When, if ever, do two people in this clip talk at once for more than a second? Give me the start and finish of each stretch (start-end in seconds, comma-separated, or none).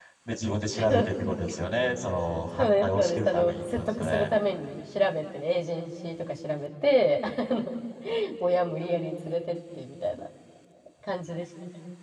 2.6-4.4